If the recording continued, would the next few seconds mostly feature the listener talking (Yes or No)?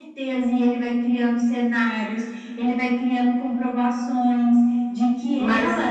No